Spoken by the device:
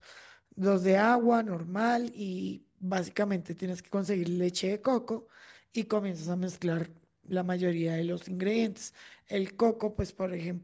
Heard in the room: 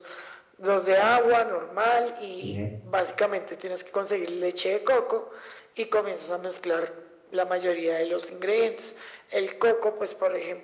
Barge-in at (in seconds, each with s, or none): 2.4 s